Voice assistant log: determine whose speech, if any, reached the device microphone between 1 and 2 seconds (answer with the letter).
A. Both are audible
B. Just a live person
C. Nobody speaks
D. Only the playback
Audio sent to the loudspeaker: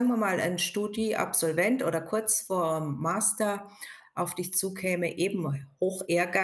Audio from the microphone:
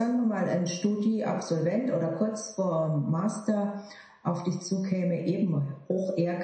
D